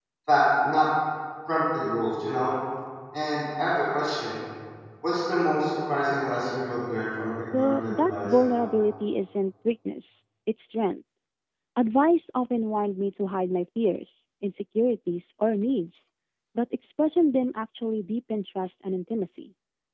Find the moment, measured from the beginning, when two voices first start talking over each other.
7.5 s

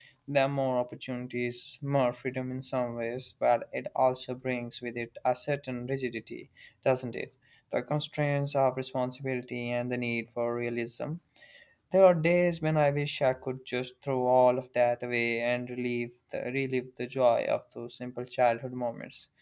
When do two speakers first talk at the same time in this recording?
none

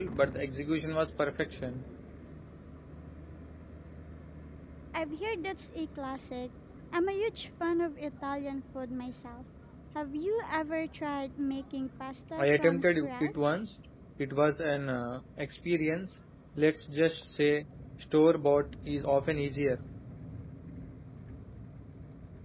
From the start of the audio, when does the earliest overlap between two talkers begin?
12.4 s

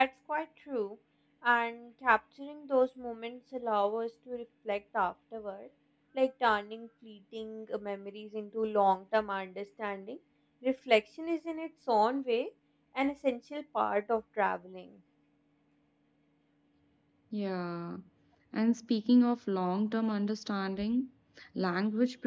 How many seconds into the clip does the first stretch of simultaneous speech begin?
none

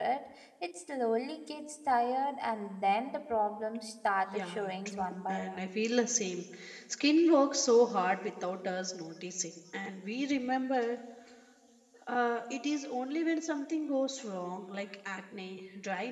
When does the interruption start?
4.2 s

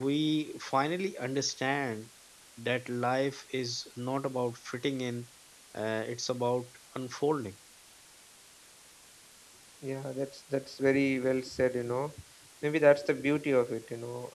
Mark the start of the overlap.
none

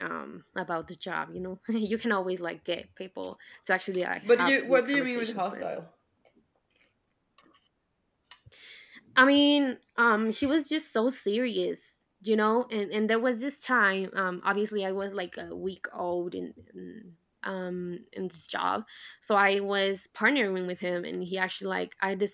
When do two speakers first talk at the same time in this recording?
4.2 s

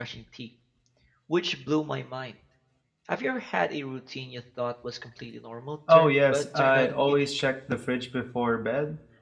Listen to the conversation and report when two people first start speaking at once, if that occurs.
5.9 s

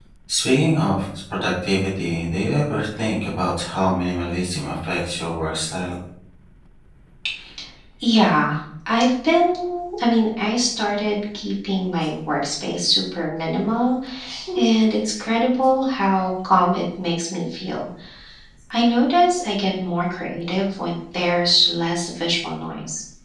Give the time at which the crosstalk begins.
none

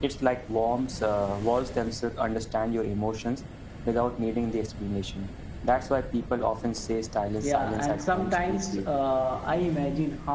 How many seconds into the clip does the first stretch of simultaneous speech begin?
7.4 s

